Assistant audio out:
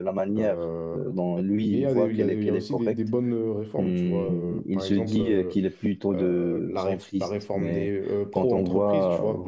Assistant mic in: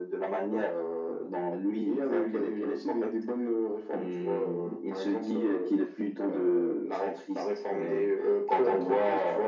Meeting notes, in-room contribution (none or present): none